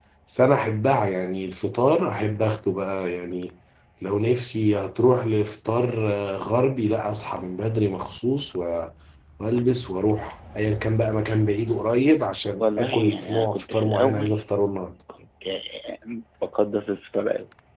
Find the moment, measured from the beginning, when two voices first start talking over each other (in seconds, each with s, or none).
12.6 s